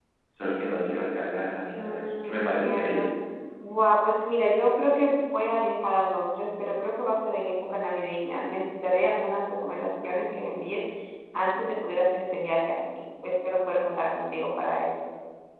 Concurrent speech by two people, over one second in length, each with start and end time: 1.8-3.1

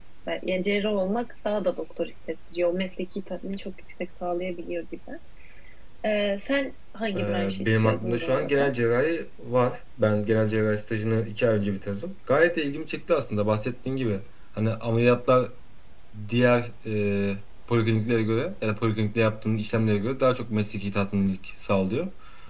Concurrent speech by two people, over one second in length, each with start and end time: 7.1-8.7

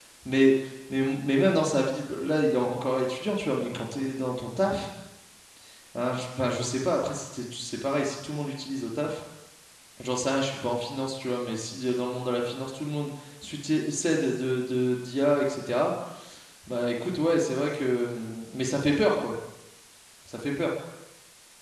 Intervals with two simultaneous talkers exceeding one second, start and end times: none

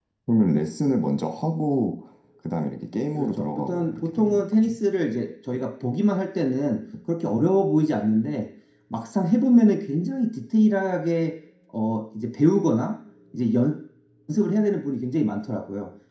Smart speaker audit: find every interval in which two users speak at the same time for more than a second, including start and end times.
3.2-4.6

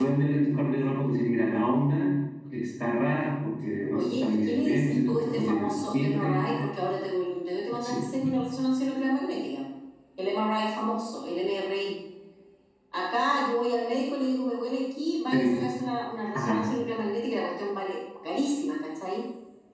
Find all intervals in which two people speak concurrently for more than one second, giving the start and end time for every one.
4.0-6.5

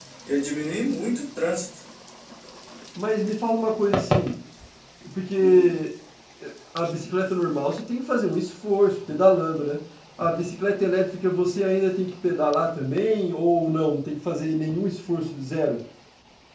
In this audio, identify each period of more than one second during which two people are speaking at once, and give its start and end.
none

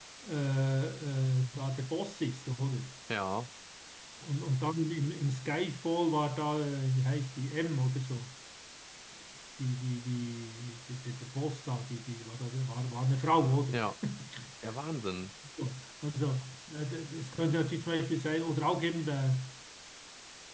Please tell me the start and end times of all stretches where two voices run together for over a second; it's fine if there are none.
none

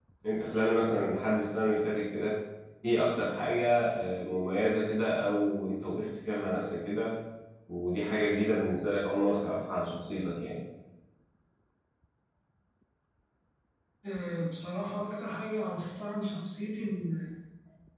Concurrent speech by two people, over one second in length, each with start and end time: none

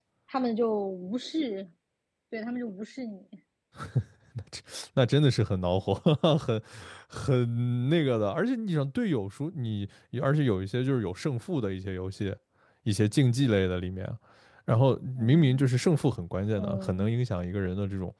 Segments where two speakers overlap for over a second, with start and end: none

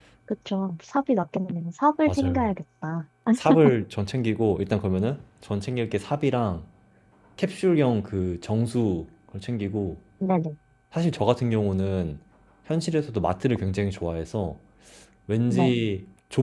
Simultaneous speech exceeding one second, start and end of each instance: none

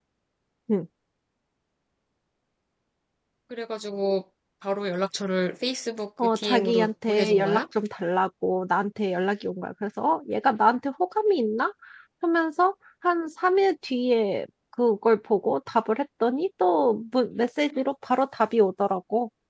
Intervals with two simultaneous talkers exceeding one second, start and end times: 6.2-7.6

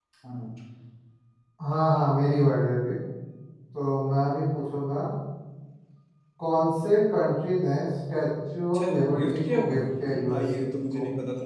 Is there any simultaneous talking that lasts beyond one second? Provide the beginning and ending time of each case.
8.7-10.5

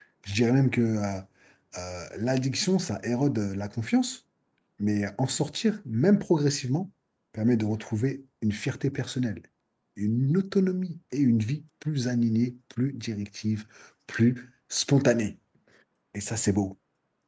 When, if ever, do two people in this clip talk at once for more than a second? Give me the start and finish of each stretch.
none

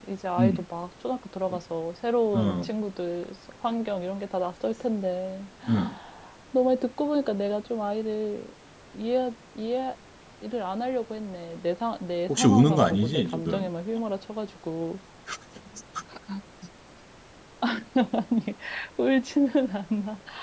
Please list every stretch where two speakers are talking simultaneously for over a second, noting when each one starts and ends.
12.3-13.7

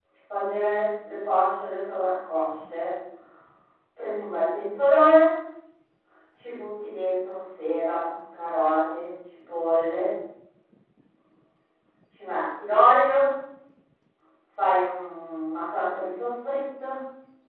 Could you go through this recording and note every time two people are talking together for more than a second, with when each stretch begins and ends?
none

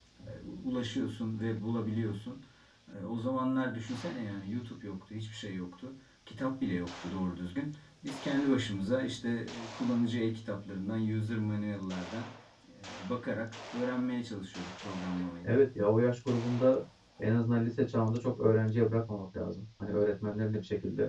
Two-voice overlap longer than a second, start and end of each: none

